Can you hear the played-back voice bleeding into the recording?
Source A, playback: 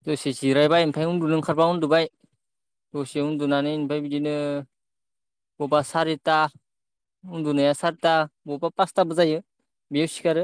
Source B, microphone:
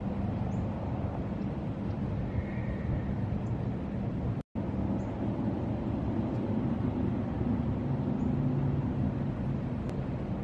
No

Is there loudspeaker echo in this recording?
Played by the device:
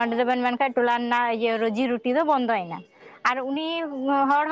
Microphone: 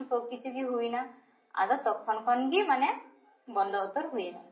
No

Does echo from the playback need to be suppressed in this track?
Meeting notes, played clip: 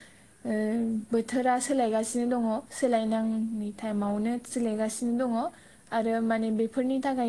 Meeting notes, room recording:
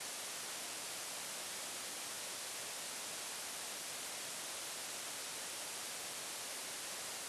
No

